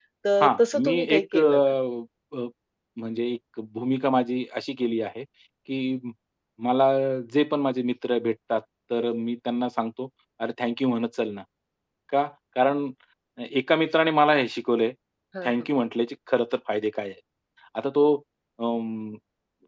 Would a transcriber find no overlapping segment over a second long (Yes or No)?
No